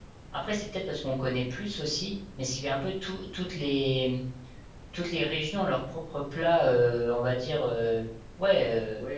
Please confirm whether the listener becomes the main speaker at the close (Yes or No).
Yes